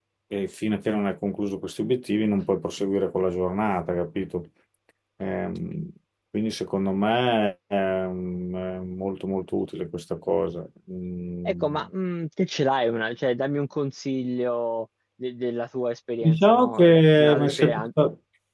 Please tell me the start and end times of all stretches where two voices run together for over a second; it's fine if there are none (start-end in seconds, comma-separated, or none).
16.2-17.9